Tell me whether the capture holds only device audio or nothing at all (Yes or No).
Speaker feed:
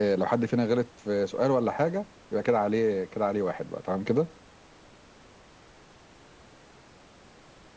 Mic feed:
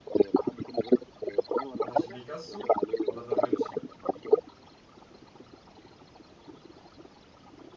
No